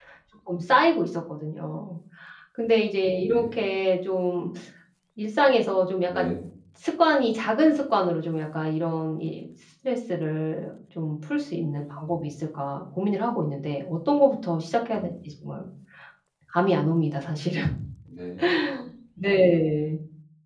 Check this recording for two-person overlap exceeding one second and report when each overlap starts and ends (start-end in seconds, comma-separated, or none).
none